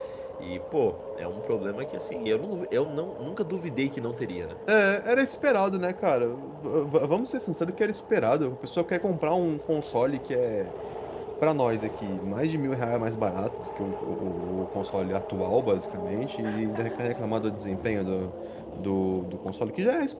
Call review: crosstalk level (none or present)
none